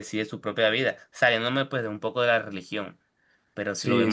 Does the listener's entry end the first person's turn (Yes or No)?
No